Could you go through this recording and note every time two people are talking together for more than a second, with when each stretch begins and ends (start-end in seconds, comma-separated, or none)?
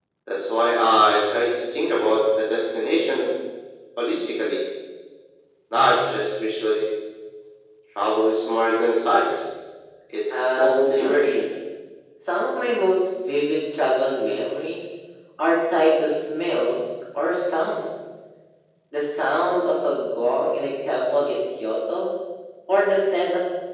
10.3-11.5